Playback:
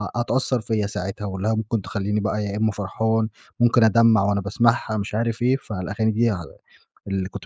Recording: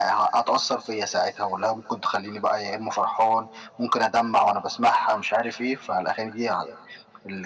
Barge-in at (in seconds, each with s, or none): none